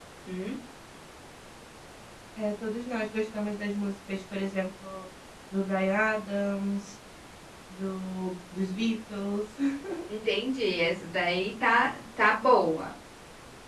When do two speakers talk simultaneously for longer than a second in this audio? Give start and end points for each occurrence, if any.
none

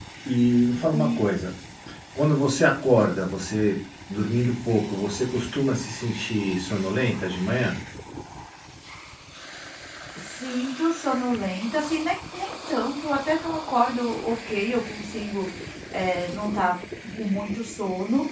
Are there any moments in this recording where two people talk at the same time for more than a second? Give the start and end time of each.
none

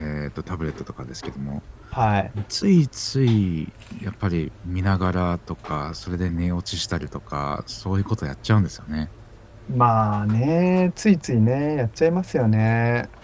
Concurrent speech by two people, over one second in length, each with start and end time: none

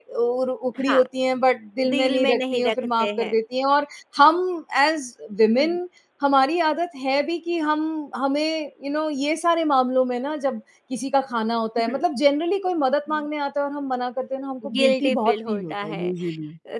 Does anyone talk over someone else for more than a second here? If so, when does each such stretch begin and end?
1.9-3.3, 14.7-16.1

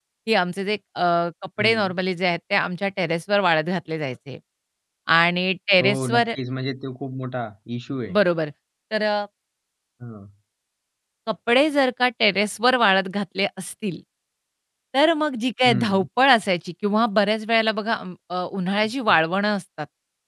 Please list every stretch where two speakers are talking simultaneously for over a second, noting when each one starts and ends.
none

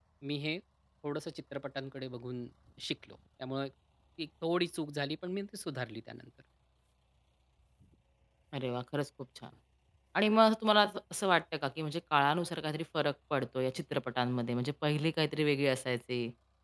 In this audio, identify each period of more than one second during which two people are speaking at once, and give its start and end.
none

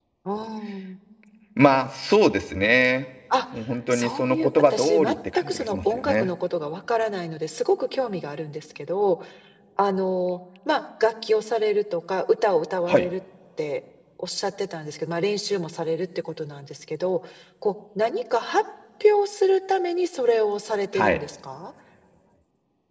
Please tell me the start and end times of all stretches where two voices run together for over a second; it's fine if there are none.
3.9-6.3

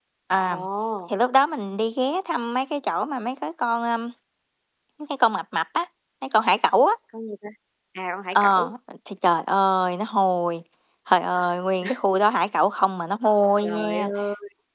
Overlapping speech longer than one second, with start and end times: none

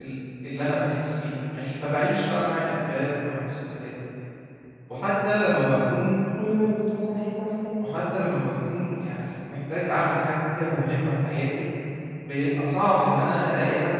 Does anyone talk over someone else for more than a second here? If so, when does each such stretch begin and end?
none

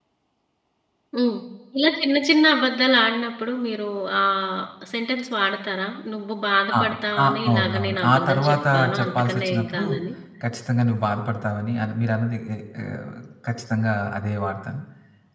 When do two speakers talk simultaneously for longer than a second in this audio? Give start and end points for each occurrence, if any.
7.2-9.8

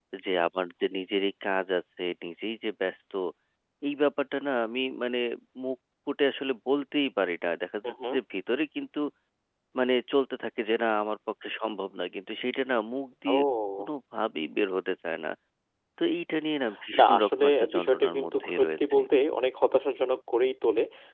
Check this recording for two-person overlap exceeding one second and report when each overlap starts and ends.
17.0-19.0

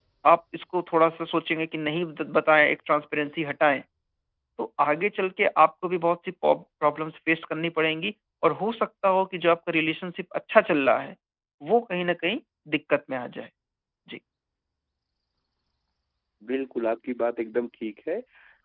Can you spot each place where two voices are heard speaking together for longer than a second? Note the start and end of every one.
none

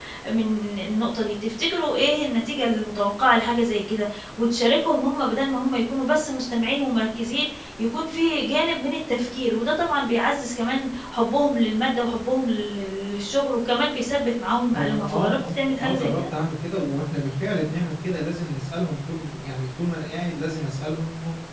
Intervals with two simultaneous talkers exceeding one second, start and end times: 14.7-16.2

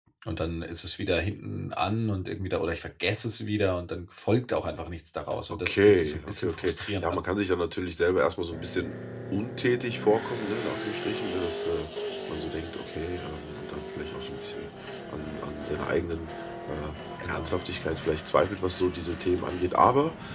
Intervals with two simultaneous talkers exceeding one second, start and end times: 5.7-7.2

